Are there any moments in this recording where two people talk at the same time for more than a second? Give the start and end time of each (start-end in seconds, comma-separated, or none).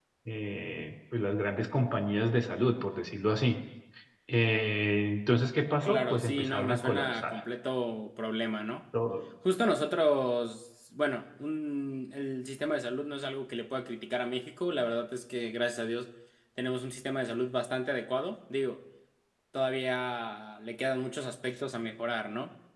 5.8-7.4